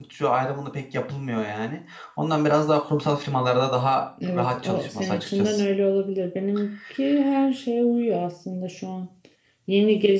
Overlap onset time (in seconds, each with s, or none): 4.3 s